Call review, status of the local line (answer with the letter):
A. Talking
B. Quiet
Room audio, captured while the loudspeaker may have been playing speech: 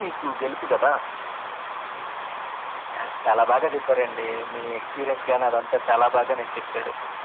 B